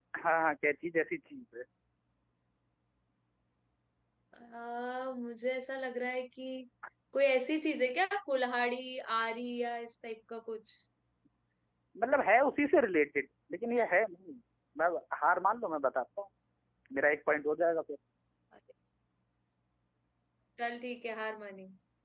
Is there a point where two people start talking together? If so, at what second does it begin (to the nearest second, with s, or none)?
none